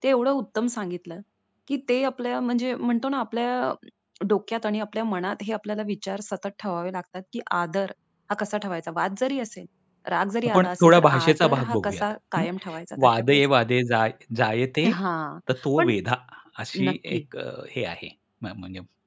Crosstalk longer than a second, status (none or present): present